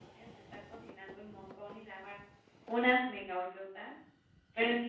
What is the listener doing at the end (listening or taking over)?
listening